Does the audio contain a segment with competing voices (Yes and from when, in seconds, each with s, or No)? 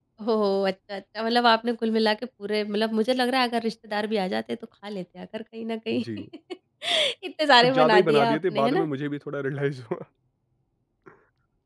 Yes, from 7.6 s